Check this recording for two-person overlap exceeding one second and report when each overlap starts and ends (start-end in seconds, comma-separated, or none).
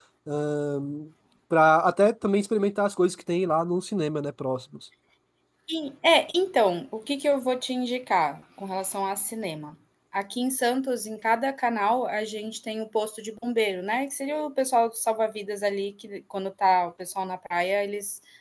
none